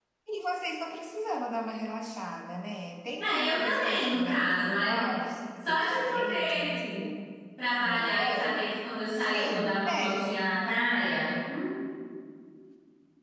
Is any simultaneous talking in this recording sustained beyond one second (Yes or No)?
Yes